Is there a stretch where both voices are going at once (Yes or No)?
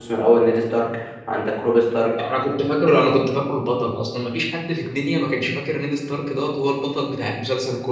No